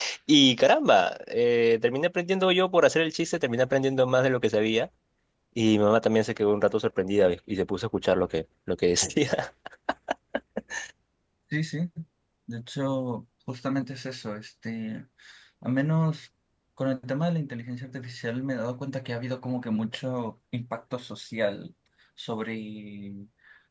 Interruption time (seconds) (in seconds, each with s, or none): none